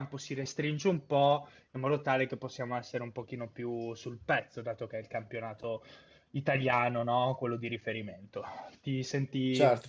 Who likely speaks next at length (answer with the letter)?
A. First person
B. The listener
A